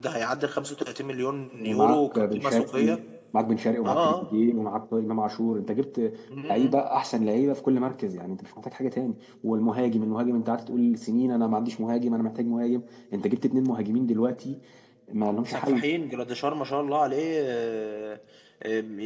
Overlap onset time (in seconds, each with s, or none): 1.6 s